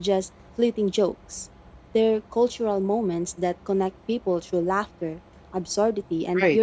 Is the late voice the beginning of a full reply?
Yes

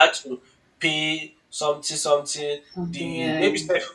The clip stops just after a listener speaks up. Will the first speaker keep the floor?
Yes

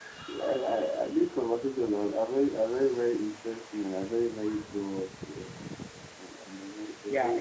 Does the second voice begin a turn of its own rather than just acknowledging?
Yes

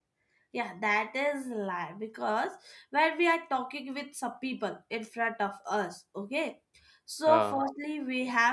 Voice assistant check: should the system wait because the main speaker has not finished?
Yes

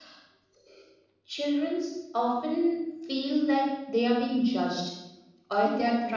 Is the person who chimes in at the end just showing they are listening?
Yes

